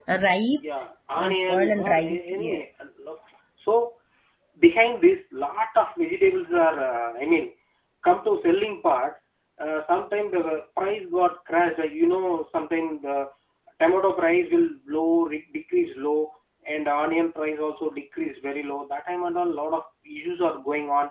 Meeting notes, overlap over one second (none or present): present